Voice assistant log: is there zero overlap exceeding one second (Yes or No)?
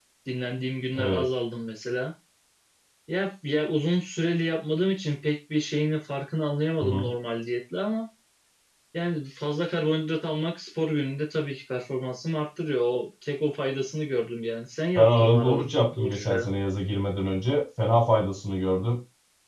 No